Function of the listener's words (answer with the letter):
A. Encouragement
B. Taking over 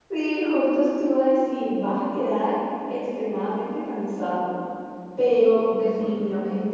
A